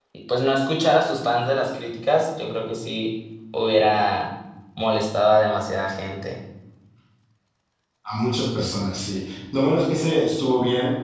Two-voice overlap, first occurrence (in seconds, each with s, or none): none